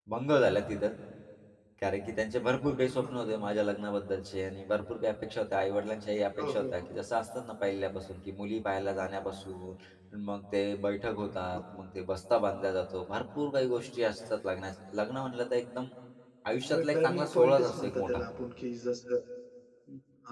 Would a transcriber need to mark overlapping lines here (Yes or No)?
Yes